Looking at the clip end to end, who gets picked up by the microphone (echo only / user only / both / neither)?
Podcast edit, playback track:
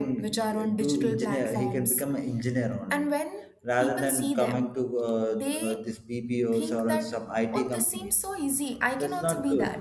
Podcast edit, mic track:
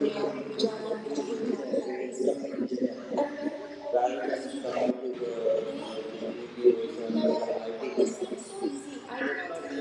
echo only